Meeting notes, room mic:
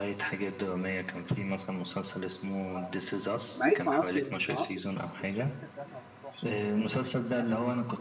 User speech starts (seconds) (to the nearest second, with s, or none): 3 s